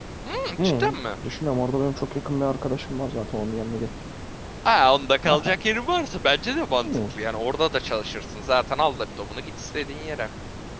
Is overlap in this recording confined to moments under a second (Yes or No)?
Yes